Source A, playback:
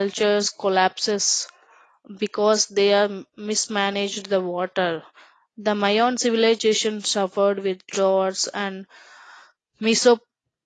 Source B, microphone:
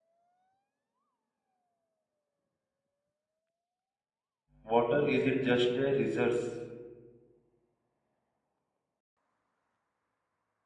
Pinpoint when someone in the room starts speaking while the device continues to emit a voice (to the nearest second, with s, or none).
5 s